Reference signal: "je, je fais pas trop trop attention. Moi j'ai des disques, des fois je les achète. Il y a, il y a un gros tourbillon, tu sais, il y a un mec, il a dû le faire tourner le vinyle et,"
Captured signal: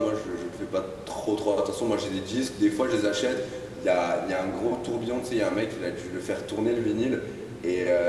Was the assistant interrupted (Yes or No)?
No